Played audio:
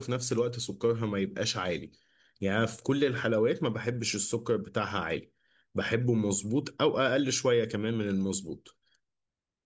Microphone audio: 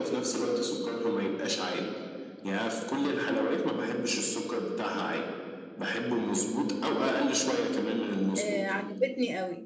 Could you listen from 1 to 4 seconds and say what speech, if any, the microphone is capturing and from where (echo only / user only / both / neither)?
echo only